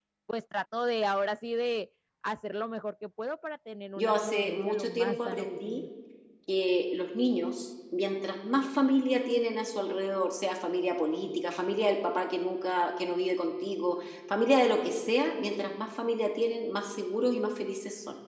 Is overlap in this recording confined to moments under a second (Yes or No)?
No